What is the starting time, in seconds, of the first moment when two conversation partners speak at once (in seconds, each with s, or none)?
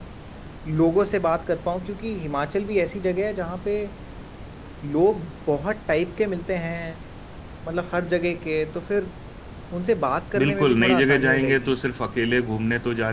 10.4 s